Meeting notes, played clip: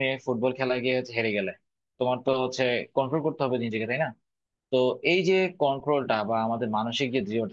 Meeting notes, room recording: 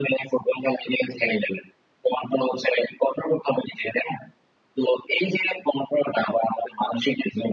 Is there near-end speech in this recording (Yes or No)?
No